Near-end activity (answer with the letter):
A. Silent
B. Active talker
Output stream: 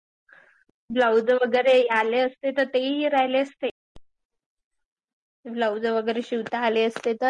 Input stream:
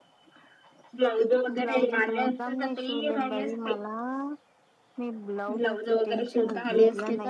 B